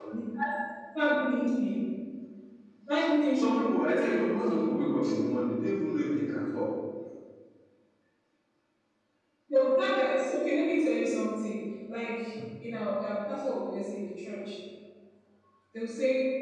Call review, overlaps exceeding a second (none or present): present